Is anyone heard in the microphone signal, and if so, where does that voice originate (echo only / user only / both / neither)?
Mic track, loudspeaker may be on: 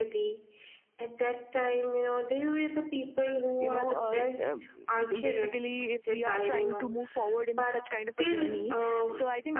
both